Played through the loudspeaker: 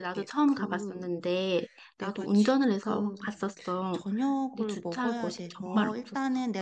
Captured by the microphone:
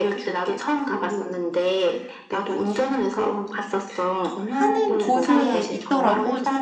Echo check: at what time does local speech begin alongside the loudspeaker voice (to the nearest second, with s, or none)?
4 s